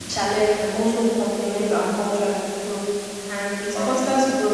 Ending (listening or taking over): listening